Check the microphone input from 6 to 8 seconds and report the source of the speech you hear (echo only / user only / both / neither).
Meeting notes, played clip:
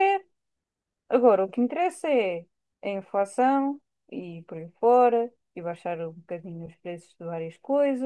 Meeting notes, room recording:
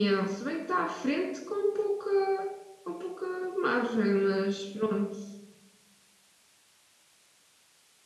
neither